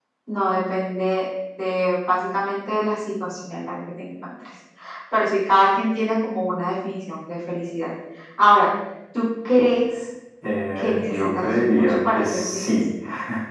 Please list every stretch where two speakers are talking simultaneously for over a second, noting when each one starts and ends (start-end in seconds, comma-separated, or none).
10.8-12.7